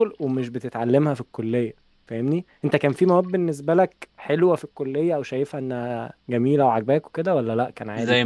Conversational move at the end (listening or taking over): taking over